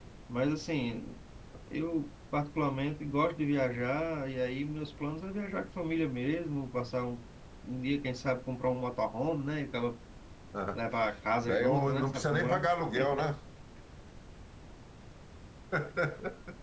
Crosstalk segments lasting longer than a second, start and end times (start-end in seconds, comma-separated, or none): 11.5-12.7